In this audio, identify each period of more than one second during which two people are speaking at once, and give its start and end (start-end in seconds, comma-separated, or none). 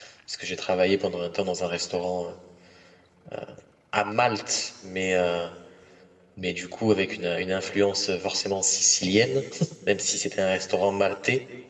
none